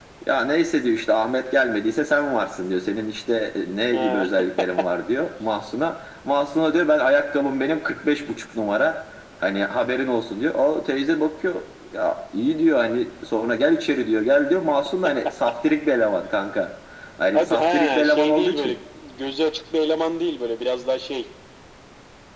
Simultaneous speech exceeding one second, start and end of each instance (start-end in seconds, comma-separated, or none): 17.3-18.8